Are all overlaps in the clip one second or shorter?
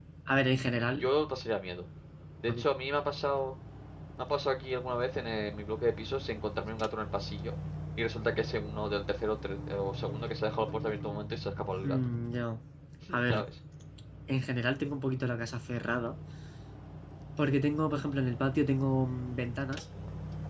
Yes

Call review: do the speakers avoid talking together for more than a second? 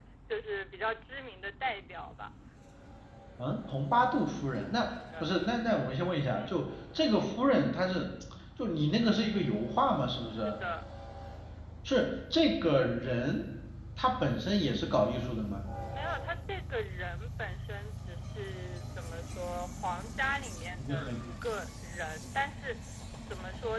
Yes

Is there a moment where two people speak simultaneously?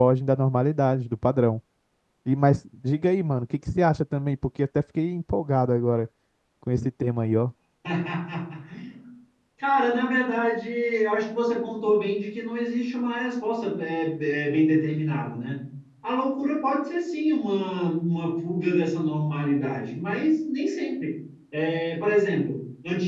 No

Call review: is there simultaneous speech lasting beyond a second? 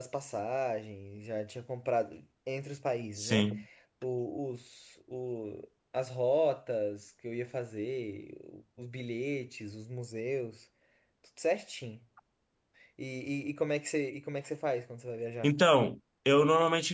No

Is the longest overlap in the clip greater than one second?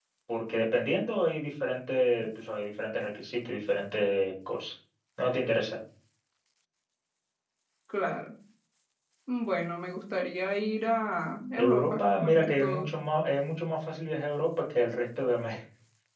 Yes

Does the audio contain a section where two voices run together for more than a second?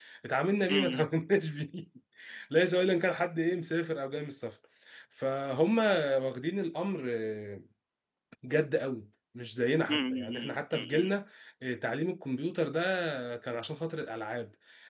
Yes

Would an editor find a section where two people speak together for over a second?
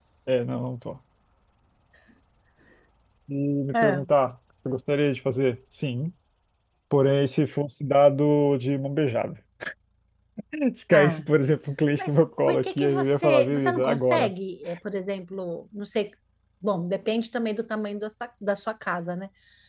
Yes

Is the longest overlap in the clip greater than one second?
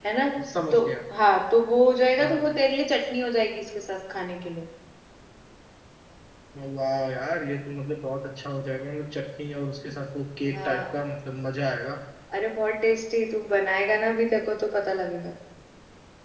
No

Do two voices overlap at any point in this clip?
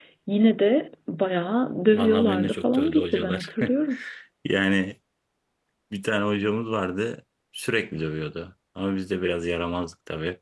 Yes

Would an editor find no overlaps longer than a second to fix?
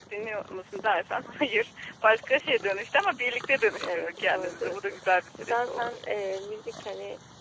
No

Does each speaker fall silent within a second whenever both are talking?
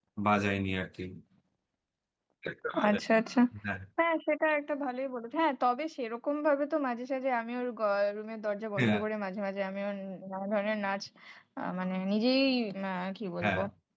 Yes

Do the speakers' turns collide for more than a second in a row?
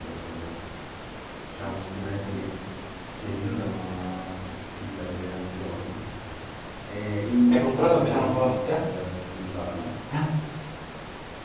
Yes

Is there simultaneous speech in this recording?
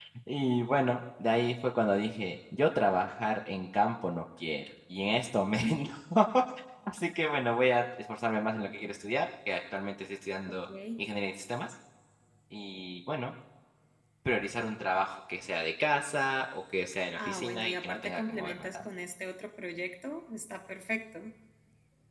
Yes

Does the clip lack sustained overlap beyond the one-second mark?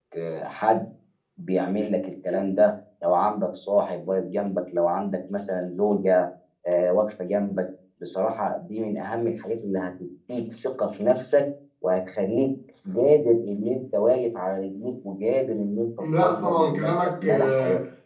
No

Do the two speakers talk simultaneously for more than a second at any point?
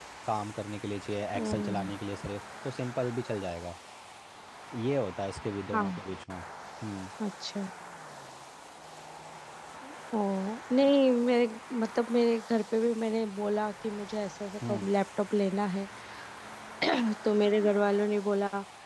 No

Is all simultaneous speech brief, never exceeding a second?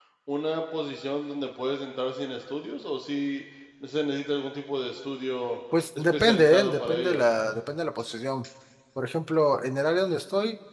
No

